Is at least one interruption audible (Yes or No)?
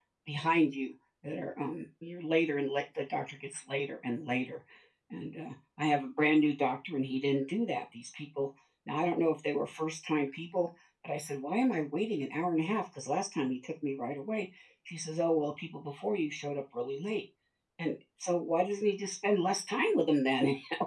No